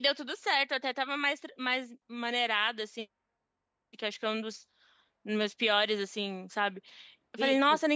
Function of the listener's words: listening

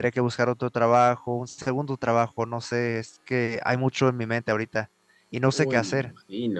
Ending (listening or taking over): taking over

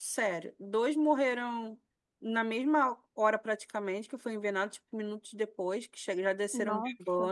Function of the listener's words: listening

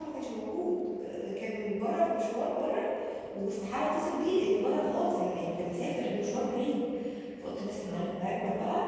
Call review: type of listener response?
listening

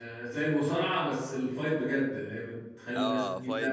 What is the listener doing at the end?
taking over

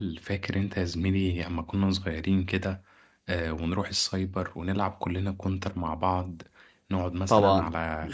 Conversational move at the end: listening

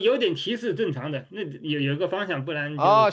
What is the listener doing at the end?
taking over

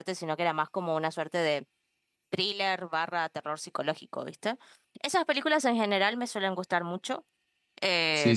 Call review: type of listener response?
taking over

